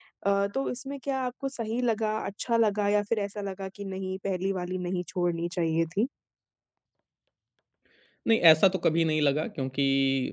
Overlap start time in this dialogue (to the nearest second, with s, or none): none